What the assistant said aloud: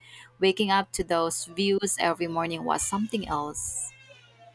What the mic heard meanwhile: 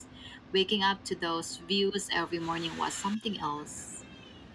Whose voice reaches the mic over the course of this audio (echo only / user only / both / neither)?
echo only